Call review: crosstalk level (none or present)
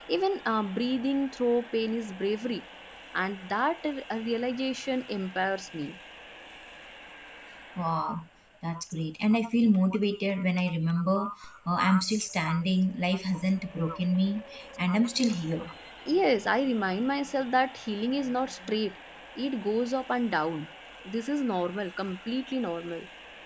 none